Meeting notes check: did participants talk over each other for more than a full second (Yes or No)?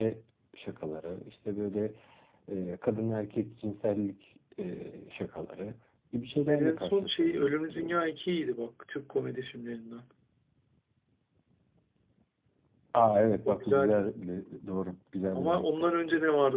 Yes